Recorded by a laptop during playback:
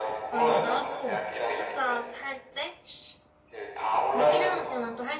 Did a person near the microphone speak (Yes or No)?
Yes